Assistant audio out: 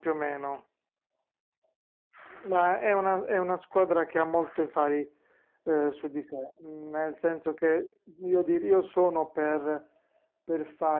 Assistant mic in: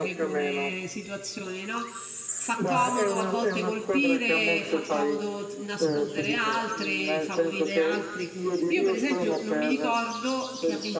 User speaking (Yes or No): Yes